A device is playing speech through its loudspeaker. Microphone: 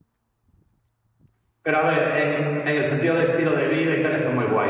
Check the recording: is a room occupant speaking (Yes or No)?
Yes